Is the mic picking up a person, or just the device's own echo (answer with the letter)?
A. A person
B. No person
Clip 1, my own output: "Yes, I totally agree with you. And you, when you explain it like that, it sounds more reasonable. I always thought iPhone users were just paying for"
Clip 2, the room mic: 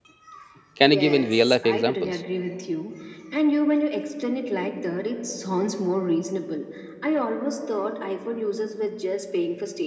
A